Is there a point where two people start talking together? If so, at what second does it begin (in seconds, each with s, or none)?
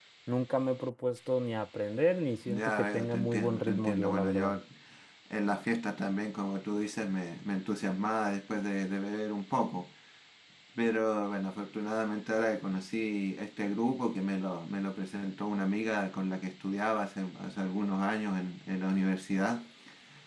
2.5 s